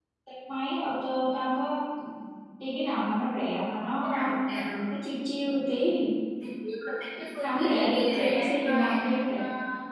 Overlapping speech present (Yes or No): Yes